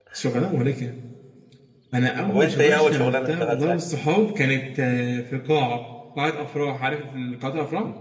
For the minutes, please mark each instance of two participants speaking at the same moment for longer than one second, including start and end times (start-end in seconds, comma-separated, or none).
2.3-3.8